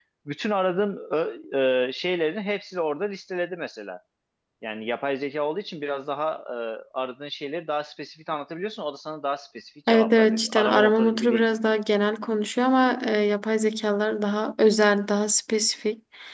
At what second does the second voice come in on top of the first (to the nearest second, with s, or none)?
10 s